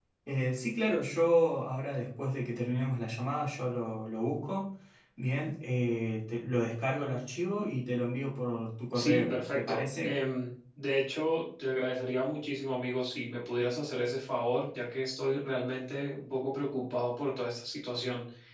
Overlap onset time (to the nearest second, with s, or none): 9 s